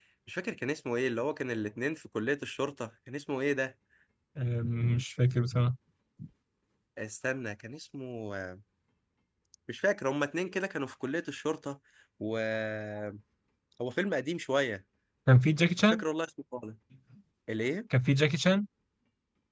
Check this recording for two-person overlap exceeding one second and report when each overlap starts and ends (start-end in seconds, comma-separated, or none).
none